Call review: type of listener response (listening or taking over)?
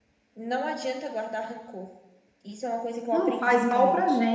taking over